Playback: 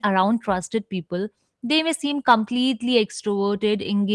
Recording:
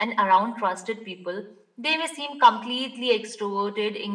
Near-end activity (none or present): none